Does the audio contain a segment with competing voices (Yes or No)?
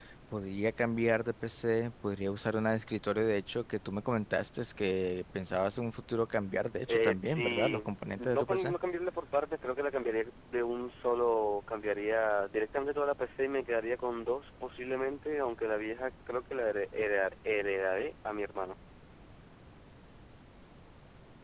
Yes